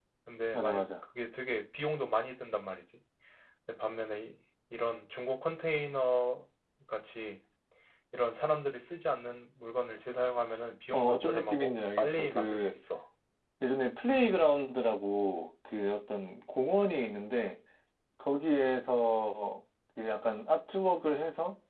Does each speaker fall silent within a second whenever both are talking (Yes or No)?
No